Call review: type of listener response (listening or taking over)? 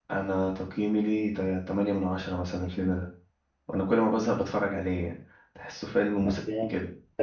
taking over